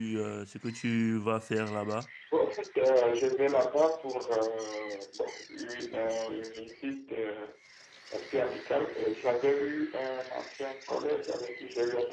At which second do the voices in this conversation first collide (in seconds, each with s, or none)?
none